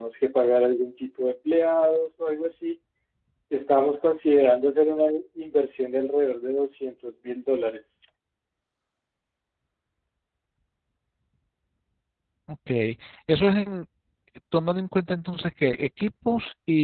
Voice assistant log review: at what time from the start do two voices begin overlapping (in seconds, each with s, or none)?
none